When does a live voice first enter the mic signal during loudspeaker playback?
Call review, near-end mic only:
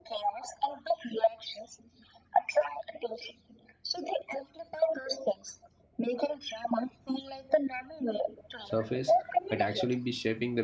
8.6 s

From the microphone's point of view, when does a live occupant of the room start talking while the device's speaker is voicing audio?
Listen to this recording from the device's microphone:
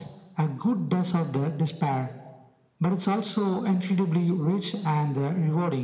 none

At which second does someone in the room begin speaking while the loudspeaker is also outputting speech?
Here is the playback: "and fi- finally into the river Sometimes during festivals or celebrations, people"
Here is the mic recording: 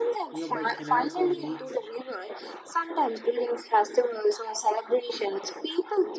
0.3 s

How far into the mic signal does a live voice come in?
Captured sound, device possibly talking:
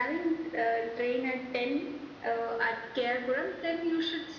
none

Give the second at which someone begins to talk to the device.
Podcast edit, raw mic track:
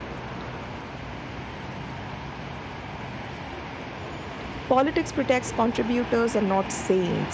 4.7 s

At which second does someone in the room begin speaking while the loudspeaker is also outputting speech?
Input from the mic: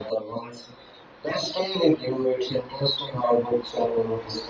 none

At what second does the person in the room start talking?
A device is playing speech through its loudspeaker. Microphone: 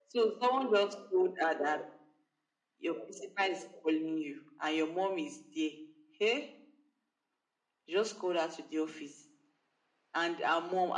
none

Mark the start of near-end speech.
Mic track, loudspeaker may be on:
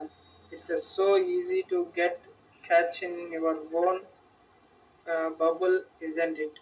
none

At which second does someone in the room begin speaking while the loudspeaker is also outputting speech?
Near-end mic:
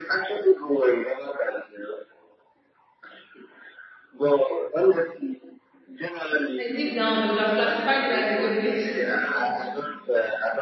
6.5 s

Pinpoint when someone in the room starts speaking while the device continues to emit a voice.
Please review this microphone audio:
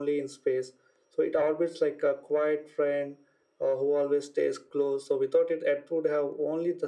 none

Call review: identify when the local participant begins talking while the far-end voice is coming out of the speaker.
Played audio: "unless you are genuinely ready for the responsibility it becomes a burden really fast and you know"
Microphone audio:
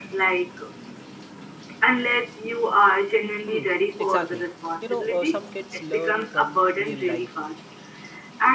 3.5 s

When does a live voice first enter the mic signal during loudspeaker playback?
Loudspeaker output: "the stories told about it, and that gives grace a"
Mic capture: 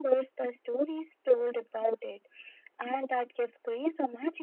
none

